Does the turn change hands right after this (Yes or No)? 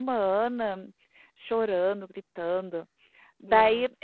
No